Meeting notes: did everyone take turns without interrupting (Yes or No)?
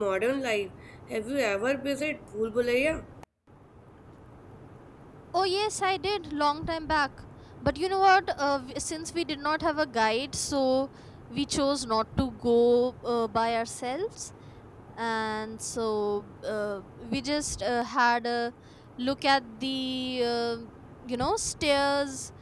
Yes